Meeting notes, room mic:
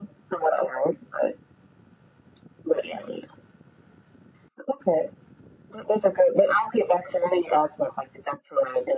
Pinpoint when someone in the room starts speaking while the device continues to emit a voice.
none

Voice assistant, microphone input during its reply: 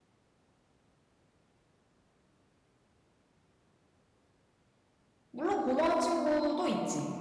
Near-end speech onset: 5.3 s

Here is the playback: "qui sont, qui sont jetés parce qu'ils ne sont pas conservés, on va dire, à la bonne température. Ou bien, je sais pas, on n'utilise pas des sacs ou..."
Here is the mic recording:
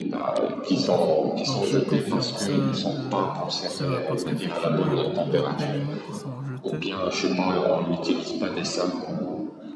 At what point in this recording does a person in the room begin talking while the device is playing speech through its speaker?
0.7 s

